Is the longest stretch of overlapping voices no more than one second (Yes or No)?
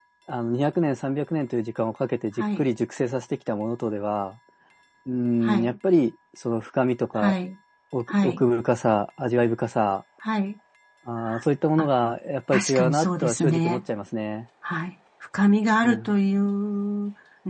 No